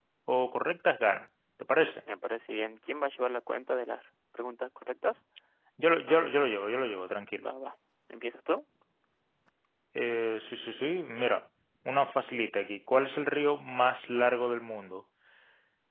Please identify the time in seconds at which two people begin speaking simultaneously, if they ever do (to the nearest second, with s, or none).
none